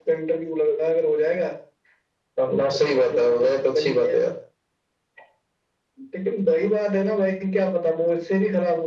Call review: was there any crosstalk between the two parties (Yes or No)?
Yes